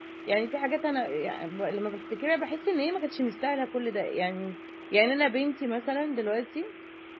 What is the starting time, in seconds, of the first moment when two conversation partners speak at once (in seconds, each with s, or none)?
none